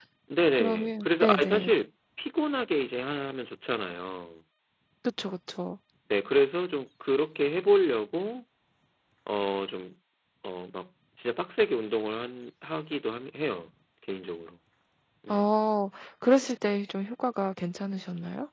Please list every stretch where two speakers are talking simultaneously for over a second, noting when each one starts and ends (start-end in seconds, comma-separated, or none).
0.5-1.8